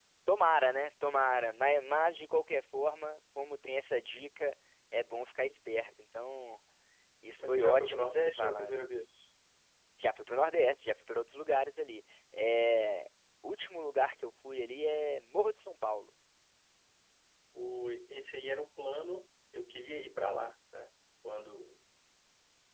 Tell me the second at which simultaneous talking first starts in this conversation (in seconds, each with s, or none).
7.4 s